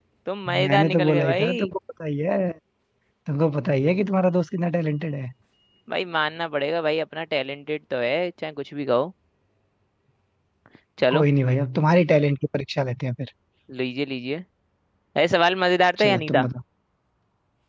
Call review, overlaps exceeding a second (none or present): present